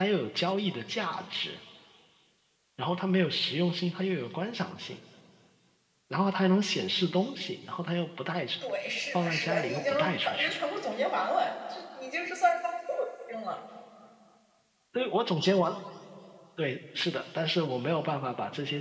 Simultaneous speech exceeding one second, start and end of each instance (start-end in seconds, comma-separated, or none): 9.1-10.6